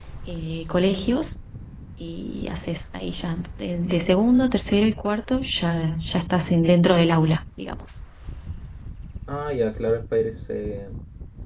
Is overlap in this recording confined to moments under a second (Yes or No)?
Yes